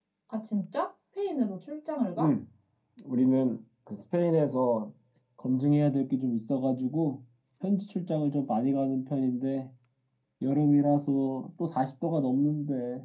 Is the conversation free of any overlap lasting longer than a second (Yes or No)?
Yes